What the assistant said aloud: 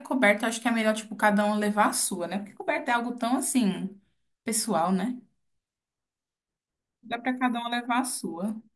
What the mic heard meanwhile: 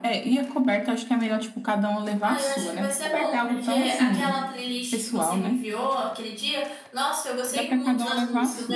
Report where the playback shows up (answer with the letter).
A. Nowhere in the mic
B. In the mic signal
B